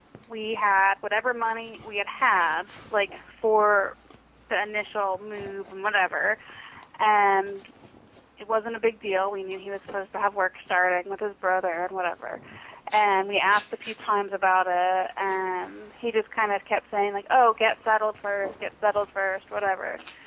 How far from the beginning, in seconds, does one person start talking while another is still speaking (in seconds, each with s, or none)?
none